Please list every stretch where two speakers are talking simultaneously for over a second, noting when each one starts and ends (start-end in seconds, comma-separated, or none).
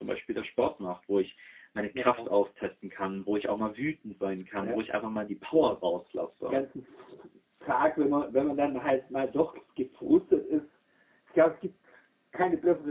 none